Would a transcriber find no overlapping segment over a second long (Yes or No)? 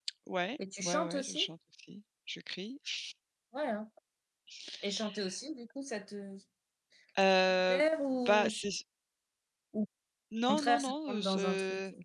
No